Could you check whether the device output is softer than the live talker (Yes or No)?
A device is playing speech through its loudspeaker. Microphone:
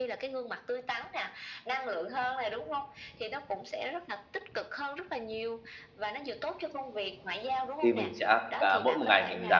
Yes